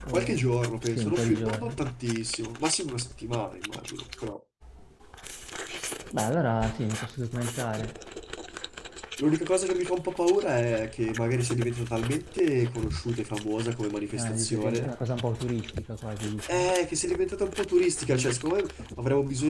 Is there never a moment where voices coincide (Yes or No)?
No